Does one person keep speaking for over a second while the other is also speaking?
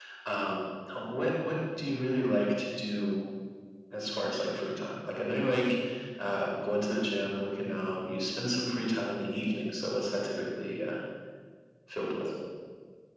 No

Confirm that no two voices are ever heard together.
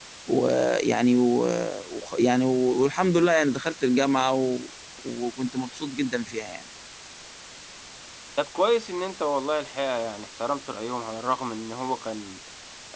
Yes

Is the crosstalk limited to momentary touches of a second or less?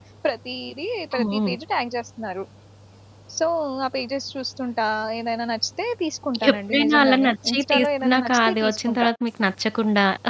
No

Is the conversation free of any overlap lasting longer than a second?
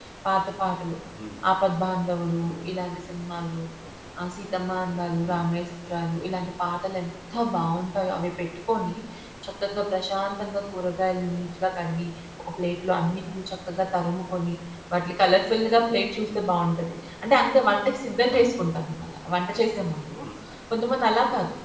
Yes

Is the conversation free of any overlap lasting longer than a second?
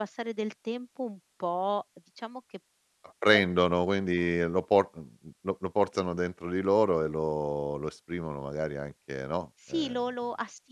Yes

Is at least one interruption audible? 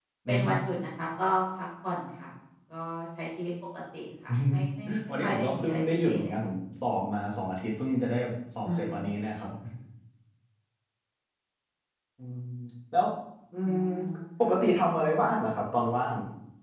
Yes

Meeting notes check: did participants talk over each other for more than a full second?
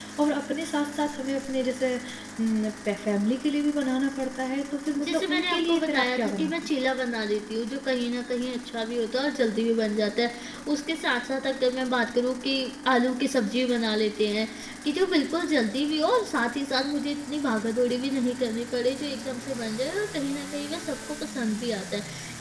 Yes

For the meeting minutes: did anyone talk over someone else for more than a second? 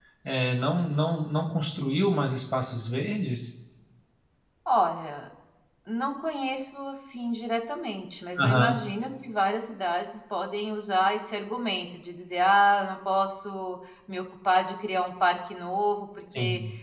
No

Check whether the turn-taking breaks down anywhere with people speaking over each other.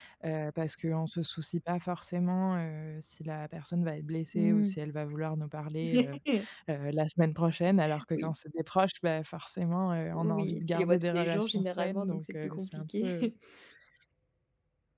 Yes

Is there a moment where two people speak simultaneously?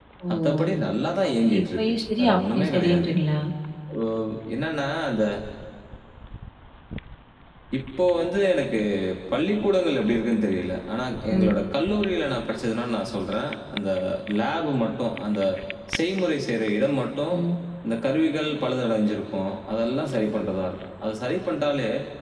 Yes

